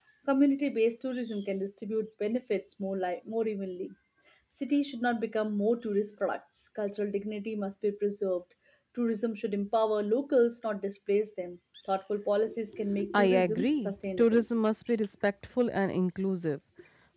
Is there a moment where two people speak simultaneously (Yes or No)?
Yes